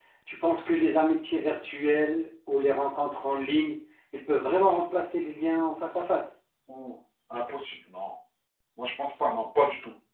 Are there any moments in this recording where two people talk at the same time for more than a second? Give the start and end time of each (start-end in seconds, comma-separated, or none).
none